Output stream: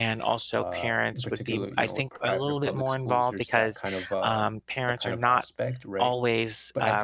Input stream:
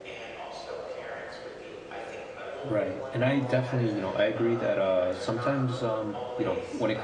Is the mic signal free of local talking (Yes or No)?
No